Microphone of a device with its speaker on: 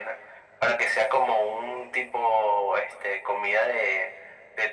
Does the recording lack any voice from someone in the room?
Yes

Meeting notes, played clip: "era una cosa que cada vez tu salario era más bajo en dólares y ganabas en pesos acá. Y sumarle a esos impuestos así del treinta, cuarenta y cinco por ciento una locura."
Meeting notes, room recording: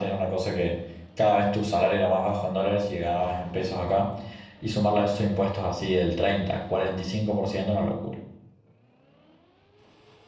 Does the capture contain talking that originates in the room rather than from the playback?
No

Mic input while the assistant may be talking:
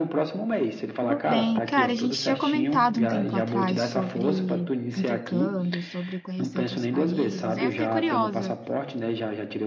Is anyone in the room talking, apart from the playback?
Yes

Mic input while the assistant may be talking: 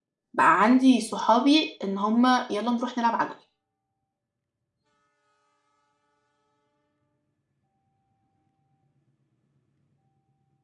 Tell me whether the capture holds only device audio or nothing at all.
No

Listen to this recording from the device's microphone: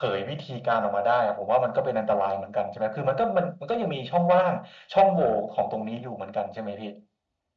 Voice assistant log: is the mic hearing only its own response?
Yes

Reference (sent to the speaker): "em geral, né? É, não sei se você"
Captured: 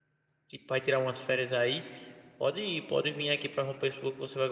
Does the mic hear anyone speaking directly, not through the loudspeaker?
Yes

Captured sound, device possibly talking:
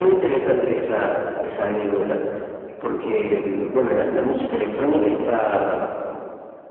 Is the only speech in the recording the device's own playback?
Yes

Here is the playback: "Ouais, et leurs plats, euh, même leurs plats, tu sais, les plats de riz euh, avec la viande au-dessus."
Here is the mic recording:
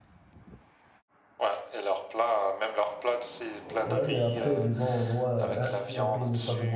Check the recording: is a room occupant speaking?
Yes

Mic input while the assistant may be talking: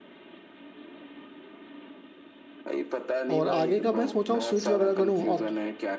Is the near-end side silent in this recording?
No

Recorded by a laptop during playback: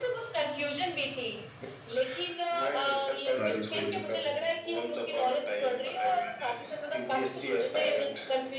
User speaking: Yes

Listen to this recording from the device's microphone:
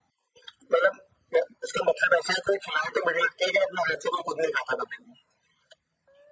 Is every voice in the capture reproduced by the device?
Yes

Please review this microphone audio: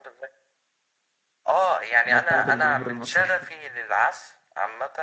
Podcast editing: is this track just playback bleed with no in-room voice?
No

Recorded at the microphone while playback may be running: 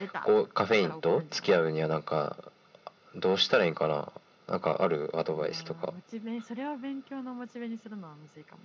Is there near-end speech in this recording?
Yes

